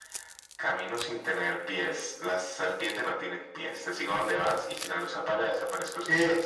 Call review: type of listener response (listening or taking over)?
taking over